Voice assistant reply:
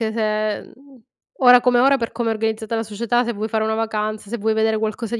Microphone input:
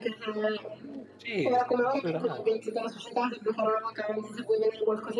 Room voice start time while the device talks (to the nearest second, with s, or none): 1 s